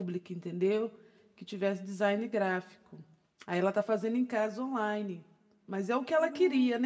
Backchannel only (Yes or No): Yes